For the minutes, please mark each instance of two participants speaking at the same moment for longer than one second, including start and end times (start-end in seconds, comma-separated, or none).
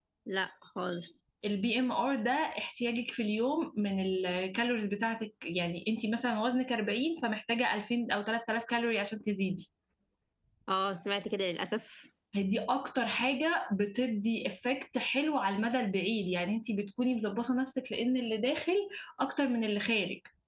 none